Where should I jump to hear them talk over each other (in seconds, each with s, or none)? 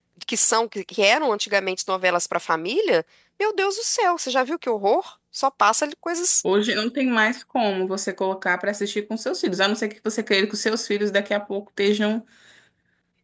none